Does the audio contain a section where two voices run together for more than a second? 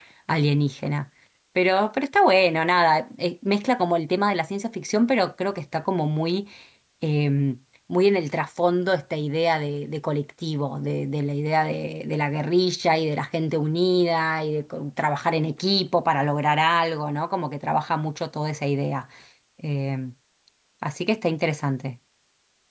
No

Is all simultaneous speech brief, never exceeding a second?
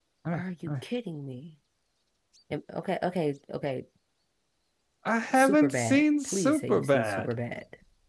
No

